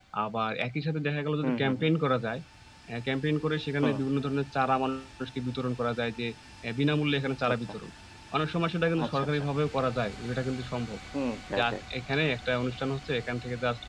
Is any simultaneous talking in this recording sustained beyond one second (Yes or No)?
No